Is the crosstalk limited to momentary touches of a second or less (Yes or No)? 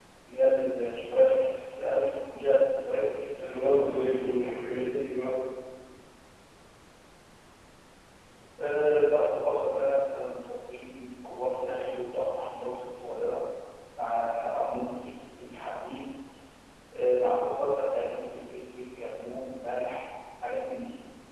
No